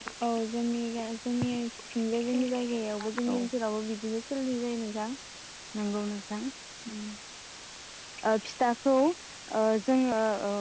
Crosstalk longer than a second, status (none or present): none